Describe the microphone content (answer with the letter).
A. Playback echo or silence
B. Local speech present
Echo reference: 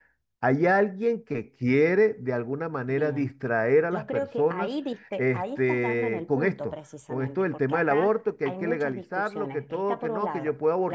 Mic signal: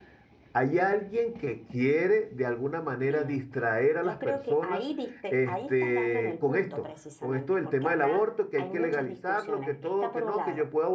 A